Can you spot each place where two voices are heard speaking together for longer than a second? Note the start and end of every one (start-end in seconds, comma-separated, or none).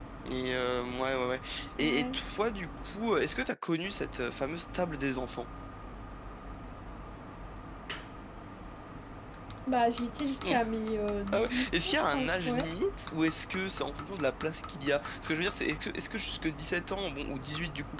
11.3-12.7